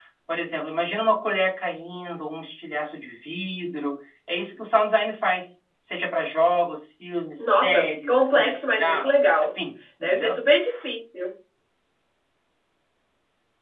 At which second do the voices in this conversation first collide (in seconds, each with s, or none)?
7.4 s